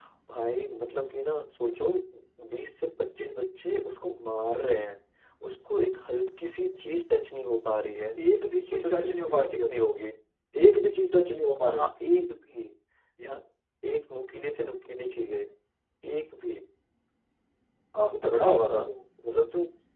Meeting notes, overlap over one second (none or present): present